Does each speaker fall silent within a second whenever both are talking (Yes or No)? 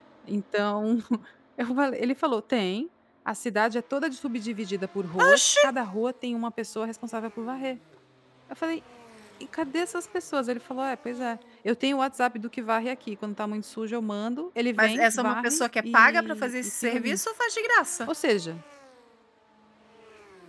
No